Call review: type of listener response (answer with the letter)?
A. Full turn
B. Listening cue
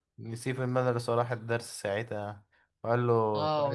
A